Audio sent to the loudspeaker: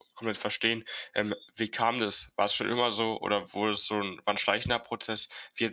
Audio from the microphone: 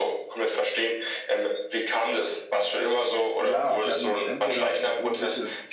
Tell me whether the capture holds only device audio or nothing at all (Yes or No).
No